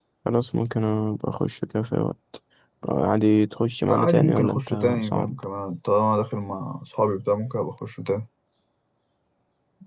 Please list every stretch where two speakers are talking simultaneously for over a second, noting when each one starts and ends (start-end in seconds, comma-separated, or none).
3.9-5.4